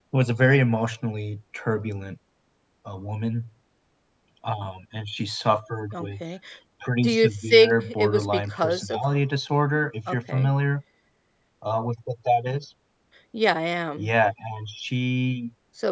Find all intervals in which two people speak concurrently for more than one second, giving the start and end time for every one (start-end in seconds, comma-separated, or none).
7.0-9.0